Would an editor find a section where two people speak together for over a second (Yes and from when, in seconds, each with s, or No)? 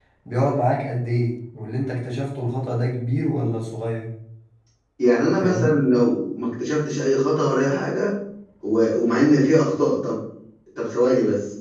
No